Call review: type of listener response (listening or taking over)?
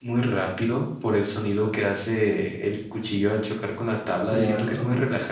listening